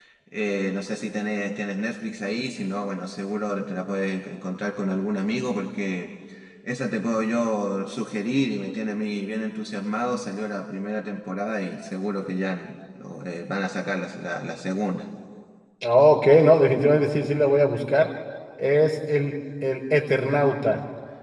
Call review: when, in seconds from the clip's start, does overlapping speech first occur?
none

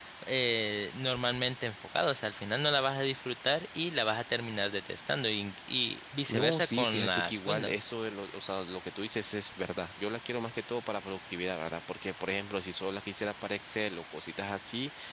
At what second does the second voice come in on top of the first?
6 s

